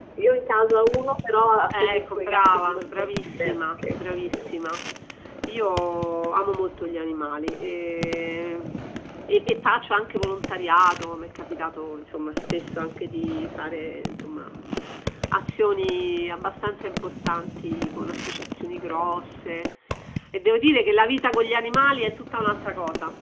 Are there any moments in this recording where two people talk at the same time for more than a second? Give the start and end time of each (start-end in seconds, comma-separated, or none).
1.7-4.5